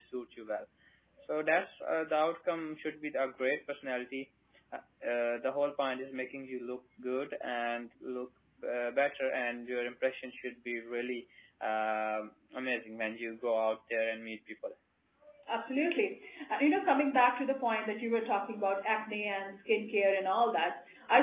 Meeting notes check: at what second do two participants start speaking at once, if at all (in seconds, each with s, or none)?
none